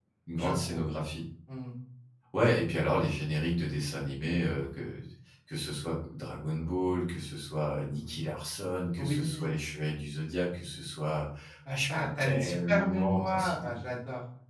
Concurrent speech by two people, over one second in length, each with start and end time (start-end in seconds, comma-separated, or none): 11.7-13.7